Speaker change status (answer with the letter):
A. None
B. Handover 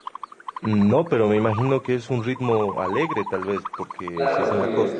B